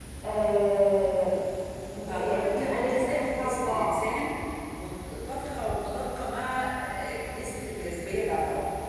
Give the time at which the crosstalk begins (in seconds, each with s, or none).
2.1 s